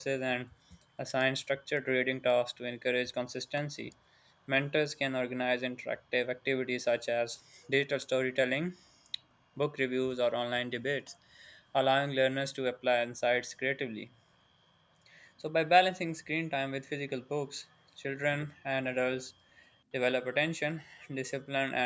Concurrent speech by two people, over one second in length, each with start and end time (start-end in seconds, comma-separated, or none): none